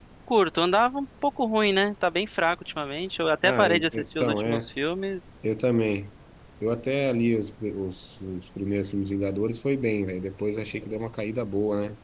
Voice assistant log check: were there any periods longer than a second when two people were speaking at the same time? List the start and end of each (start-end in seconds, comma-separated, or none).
3.4-4.7